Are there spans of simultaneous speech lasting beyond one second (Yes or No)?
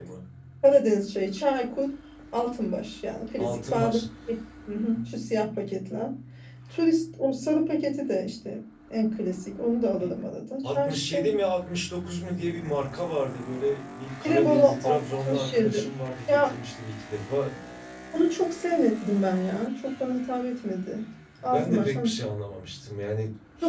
Yes